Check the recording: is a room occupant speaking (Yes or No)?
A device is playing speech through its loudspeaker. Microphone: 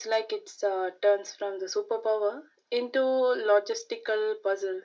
No